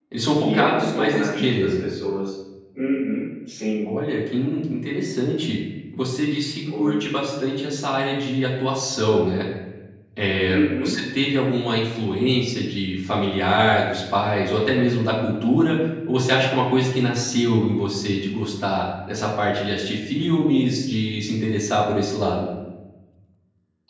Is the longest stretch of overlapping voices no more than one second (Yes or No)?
No